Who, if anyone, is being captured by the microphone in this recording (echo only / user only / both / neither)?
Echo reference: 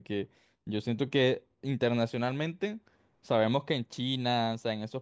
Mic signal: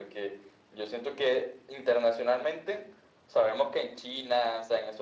echo only